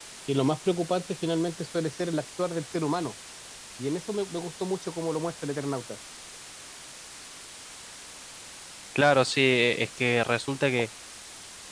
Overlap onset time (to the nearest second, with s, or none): none